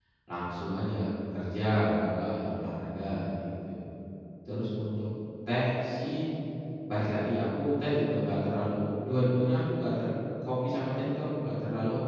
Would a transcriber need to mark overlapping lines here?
No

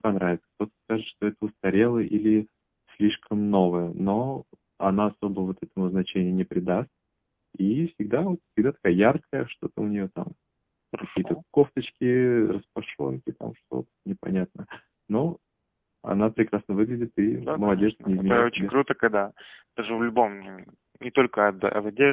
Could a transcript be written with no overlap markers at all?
No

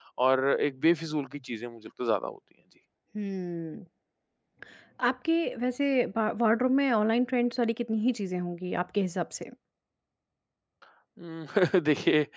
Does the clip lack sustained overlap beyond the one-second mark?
Yes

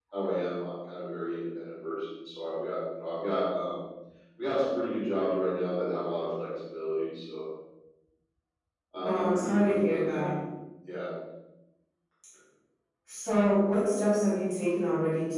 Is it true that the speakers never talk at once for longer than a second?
No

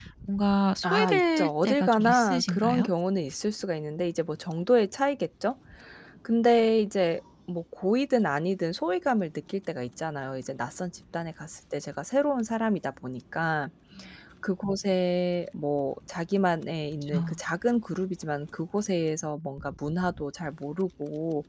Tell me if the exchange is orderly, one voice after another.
No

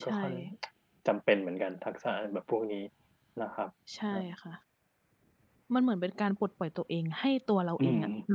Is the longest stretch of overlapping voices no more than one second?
Yes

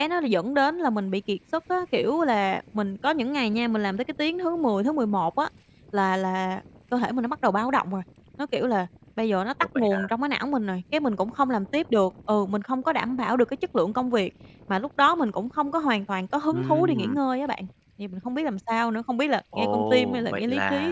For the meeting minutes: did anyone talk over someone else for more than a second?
Yes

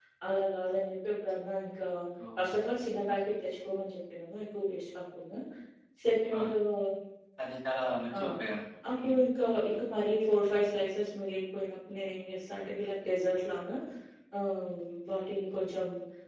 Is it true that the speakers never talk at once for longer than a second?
Yes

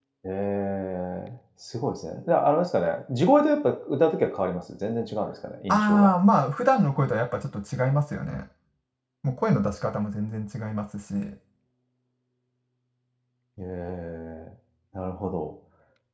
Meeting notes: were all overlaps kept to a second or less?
Yes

